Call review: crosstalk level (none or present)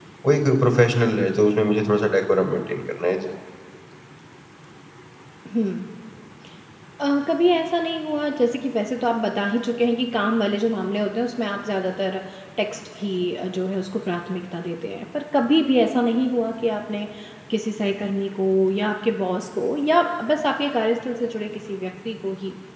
none